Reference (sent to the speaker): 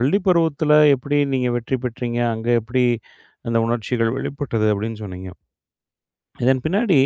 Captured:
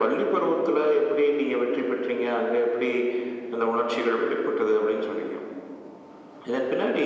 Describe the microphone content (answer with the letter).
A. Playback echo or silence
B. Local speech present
A